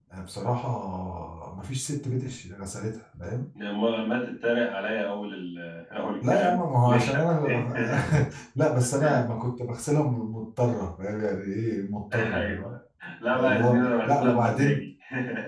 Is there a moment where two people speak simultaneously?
Yes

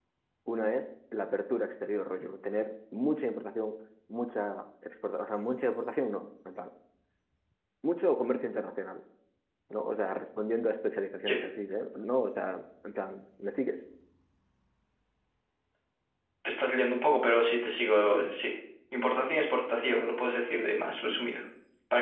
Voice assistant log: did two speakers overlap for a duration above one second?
No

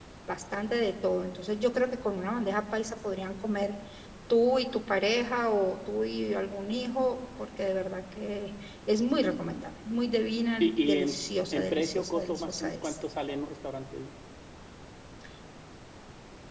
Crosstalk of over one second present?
Yes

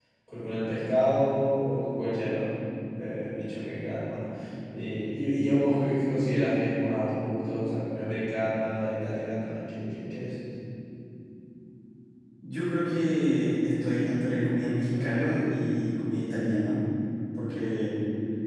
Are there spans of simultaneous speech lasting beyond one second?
No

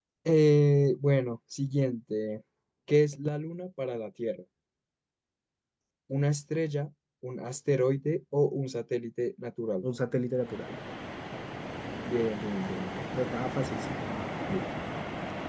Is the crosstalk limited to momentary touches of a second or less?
Yes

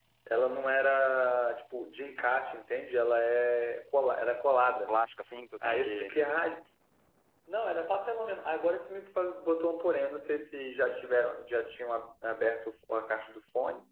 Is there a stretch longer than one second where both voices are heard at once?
No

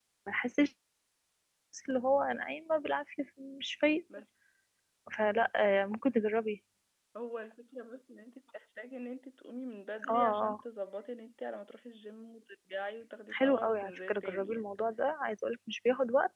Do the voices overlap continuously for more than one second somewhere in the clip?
Yes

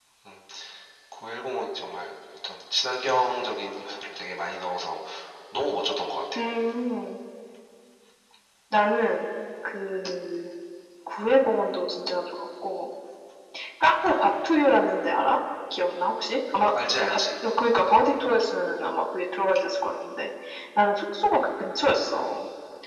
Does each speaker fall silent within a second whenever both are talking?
Yes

